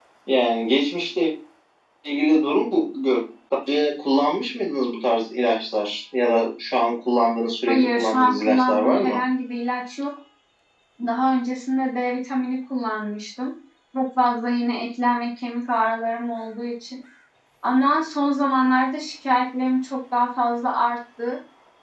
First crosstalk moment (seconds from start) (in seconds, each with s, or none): 7.7 s